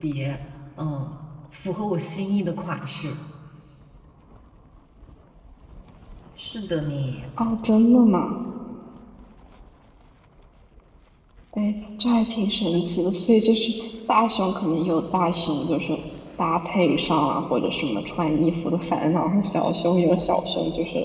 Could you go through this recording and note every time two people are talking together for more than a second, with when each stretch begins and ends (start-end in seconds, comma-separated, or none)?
none